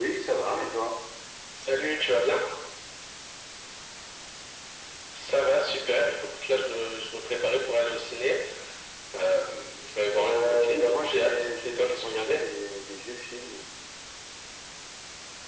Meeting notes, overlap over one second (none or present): present